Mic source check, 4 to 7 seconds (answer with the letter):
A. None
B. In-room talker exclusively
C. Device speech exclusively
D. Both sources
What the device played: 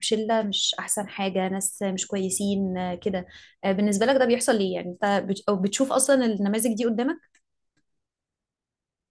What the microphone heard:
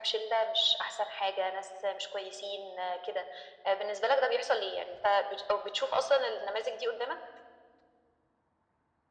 C